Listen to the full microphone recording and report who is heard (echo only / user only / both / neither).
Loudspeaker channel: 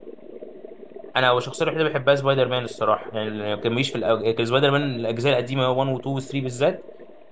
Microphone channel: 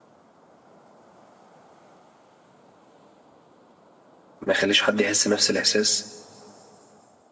user only